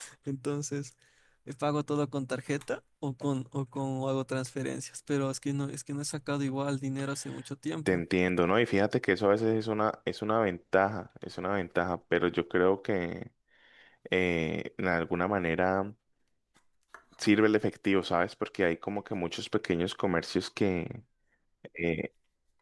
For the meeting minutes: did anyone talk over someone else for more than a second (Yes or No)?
No